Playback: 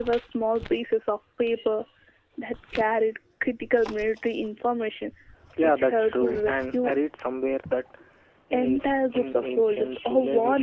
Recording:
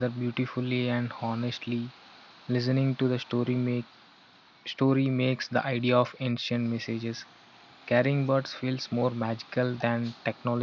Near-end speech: present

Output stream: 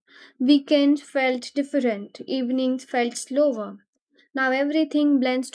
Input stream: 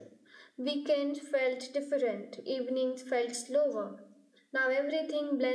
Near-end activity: none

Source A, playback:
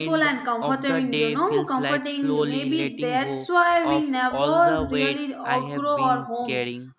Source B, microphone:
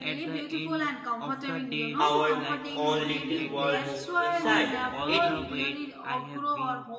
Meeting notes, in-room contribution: present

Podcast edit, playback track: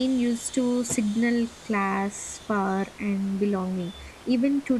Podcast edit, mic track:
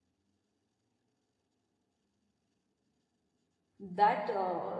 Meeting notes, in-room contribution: present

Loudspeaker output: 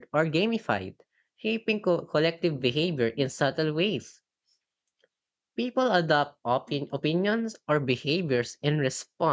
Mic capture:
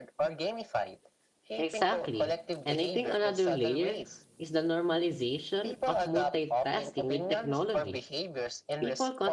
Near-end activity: present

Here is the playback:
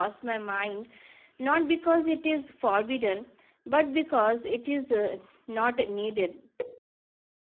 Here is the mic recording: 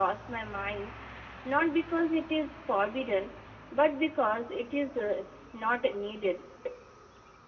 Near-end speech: none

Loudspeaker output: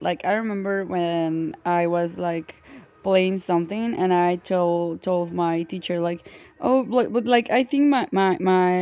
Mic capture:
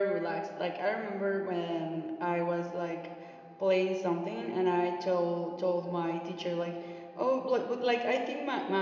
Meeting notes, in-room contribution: none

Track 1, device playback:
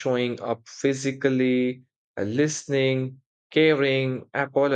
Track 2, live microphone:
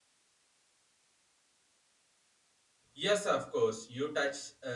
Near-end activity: present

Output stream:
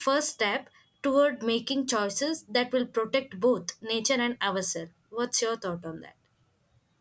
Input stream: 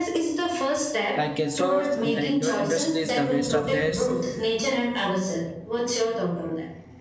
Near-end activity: present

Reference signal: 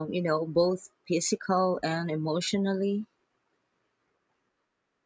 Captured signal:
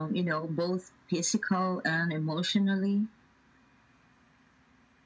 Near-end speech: none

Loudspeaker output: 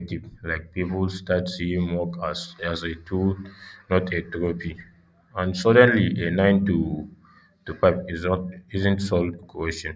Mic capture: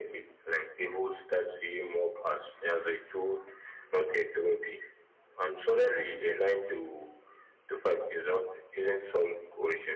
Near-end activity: none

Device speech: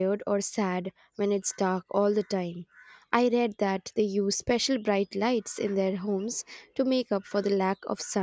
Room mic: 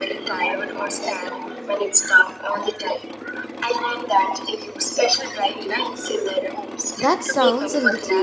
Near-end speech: present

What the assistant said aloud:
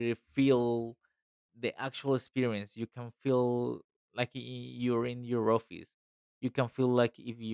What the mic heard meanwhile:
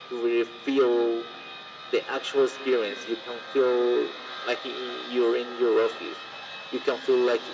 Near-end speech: none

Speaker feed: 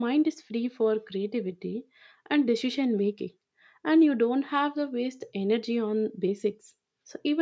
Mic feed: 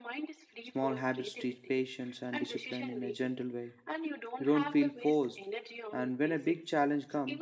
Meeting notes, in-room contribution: present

